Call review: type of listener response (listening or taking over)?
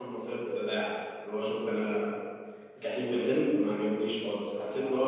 listening